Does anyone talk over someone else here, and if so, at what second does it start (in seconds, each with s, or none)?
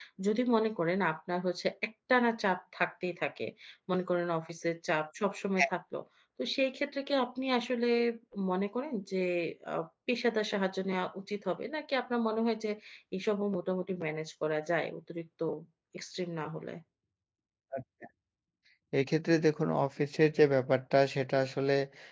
none